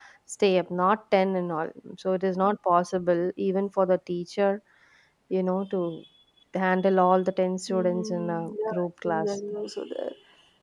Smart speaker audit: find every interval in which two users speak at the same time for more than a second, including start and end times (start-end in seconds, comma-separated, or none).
7.7-9.4